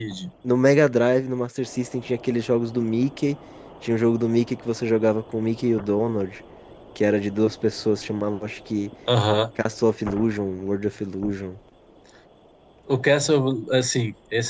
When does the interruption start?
none

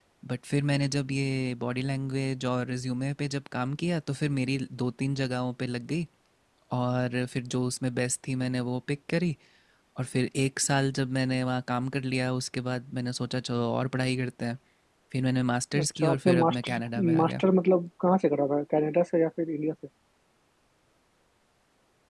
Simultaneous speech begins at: 15.8 s

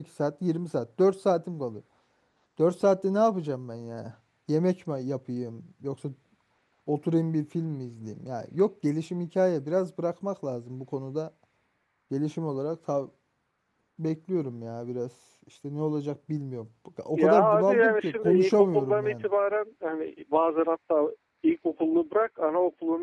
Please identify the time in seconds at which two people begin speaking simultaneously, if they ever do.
17.2 s

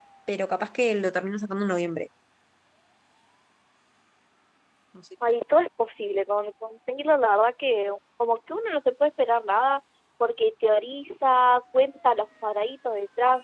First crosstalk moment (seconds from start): none

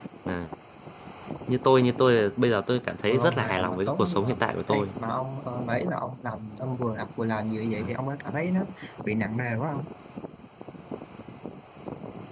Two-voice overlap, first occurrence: 3.1 s

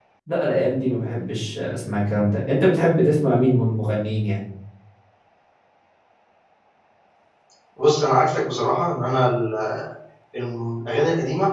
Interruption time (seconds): none

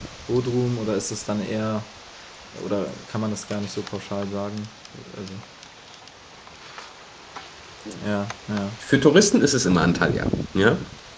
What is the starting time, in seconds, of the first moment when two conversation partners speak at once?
none

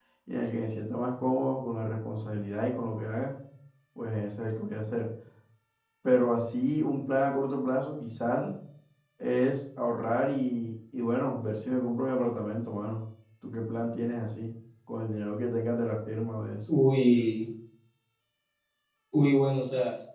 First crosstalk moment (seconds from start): none

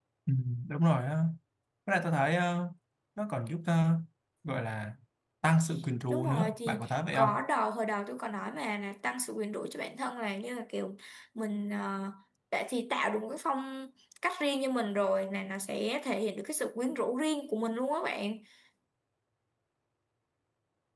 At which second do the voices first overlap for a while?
6.1 s

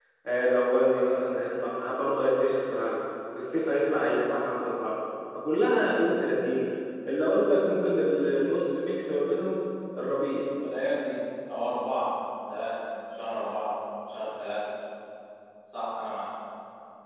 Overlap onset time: none

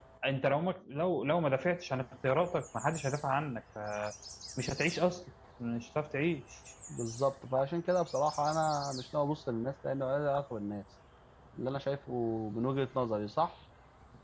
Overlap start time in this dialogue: none

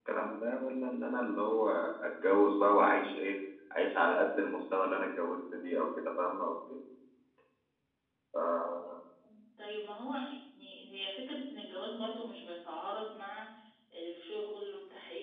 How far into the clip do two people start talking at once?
none

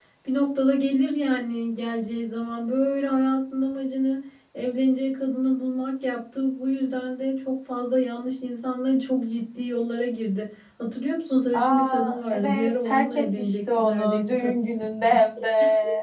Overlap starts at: 11.5 s

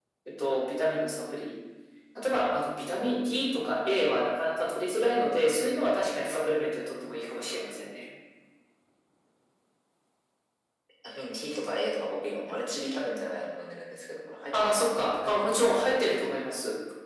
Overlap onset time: 14.5 s

